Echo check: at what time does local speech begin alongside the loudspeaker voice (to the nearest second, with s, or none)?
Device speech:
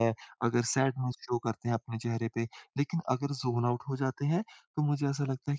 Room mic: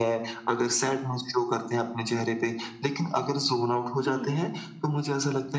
4 s